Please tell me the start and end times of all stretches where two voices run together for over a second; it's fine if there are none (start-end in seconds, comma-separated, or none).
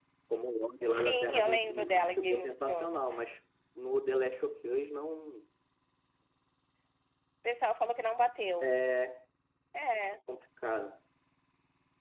0.8-3.1